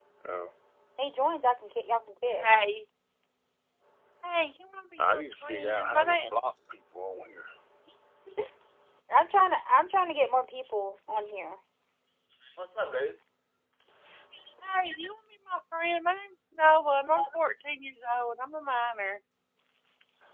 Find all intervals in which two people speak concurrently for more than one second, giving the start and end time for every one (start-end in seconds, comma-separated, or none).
5.0-6.3